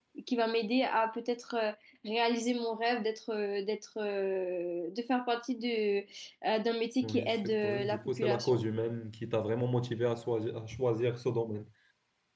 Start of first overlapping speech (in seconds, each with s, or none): 7.0 s